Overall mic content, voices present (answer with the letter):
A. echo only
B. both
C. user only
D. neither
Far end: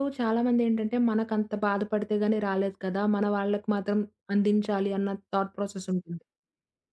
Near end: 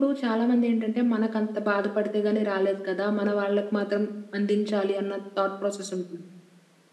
A